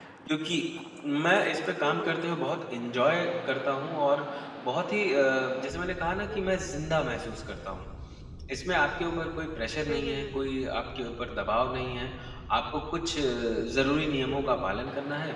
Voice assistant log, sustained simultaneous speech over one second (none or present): none